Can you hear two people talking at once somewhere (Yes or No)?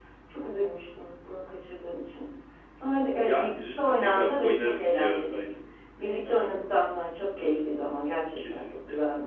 Yes